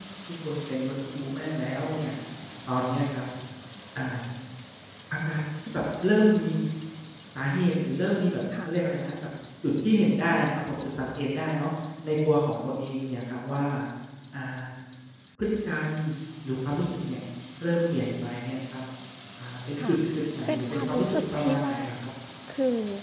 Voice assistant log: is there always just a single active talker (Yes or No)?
No